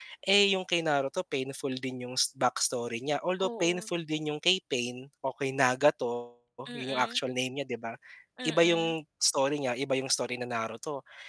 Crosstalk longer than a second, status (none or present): none